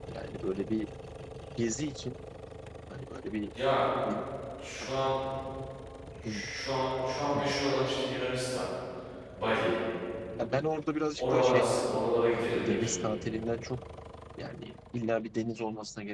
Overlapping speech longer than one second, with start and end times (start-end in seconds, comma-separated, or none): 11.2-12.9